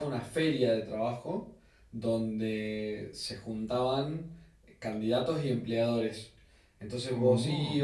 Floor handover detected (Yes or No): No